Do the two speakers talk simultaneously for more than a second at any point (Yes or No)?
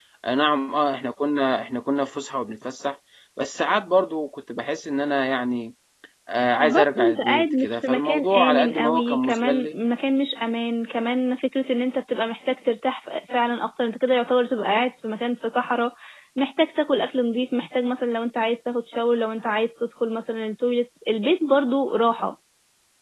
Yes